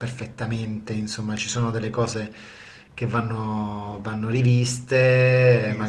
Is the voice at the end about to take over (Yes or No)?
No